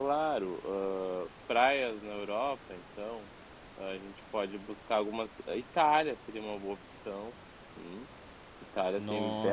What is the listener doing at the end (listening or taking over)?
taking over